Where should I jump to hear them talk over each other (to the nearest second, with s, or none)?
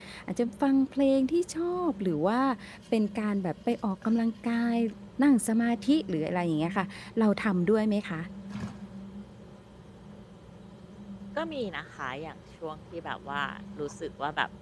none